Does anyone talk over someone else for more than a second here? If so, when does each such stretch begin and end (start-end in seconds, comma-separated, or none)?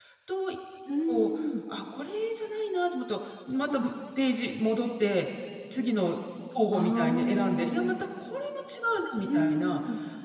6.7-7.9